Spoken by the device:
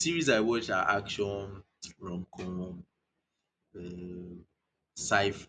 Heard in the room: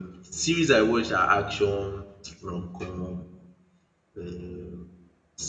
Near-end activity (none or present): none